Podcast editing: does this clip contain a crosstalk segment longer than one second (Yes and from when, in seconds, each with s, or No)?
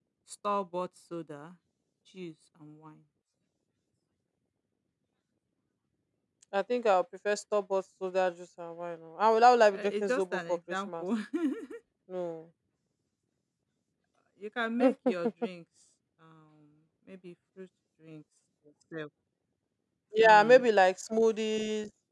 Yes, from 9.8 s